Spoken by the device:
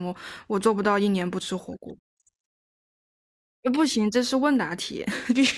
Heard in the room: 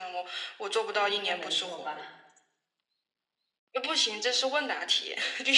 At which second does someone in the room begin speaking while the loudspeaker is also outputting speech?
0.9 s

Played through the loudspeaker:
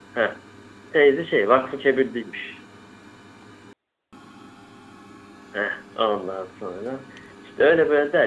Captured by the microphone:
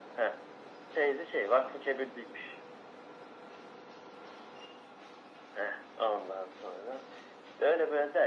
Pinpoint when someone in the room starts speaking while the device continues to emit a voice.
none

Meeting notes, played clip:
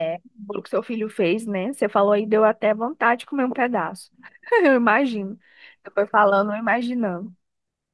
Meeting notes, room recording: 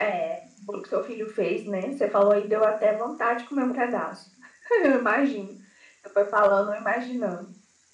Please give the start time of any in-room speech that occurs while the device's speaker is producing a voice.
none

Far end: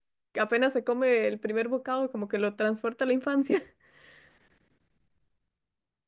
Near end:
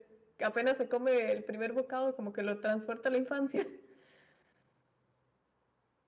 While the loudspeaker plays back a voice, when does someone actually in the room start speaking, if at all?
none

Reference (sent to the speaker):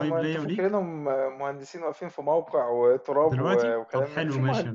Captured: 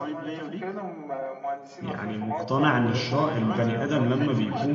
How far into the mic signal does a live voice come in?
1.8 s

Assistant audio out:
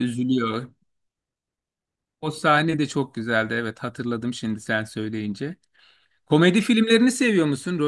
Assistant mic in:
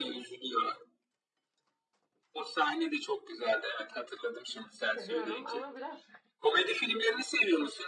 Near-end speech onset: 5.0 s

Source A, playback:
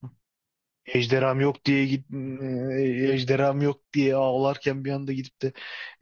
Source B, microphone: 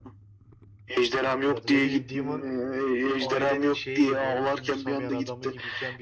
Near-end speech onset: 1.5 s

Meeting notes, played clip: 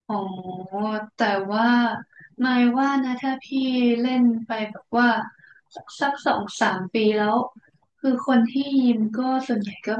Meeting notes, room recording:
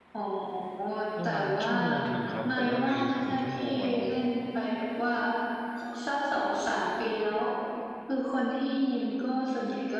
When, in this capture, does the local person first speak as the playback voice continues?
1.2 s

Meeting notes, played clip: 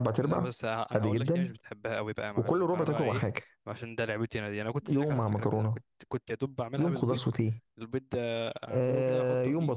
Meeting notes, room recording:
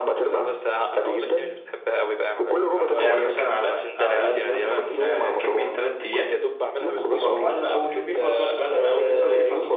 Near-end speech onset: 3.0 s

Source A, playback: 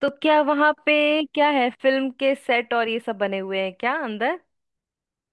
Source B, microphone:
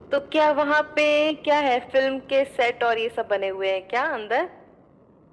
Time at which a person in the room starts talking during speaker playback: none

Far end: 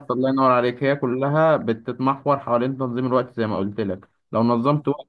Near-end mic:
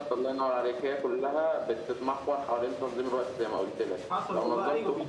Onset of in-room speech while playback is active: 4.1 s

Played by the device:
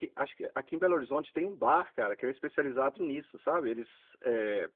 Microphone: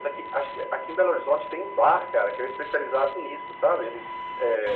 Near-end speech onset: none

